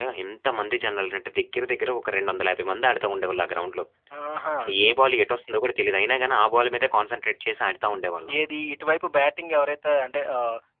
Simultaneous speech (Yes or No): No